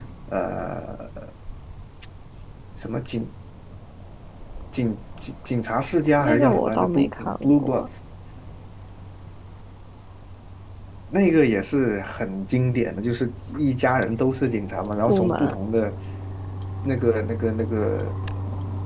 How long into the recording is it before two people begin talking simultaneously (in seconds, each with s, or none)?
6.2 s